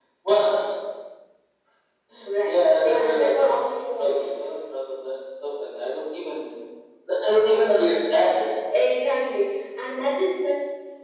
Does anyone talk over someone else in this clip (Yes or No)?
Yes